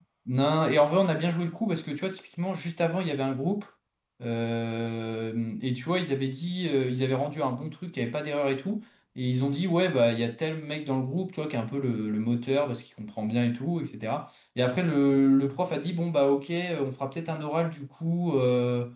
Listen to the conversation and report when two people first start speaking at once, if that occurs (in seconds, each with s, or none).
none